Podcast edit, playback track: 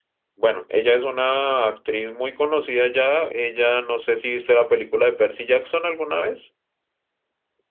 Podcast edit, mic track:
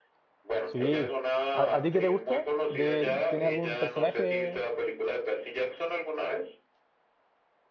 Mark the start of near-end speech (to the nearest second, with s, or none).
1 s